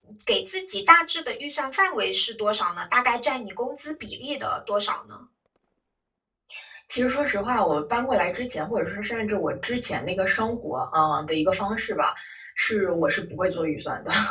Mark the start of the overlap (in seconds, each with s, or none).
none